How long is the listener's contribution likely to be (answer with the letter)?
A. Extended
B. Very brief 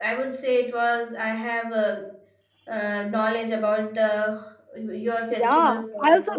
A